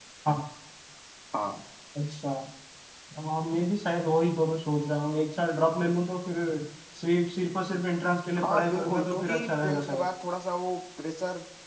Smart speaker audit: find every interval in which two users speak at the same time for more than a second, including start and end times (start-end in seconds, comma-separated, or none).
8.4-10.1